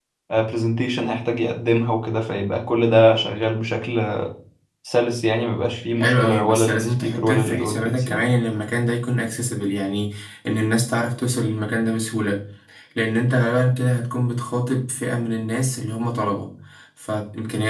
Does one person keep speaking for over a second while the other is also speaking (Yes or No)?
Yes